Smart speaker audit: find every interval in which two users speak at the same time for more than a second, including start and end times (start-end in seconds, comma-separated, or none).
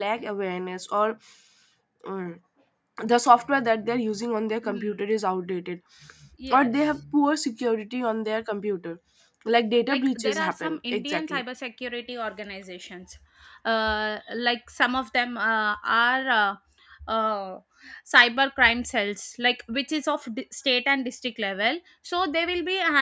9.9-11.4